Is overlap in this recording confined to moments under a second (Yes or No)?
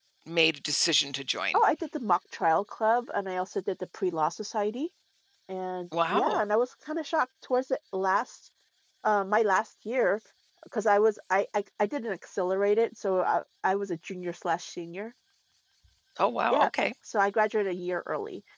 Yes